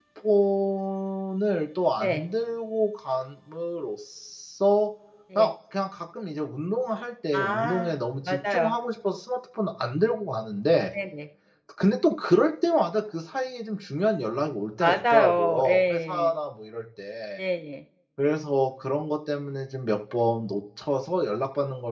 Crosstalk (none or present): present